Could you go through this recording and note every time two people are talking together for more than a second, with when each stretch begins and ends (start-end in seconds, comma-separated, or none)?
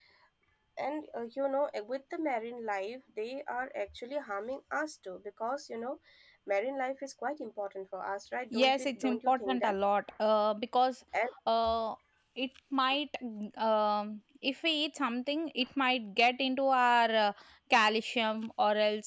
8.5-9.8